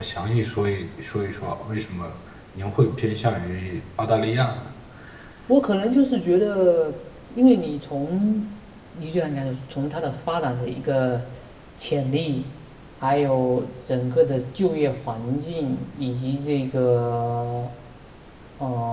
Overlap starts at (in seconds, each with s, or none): none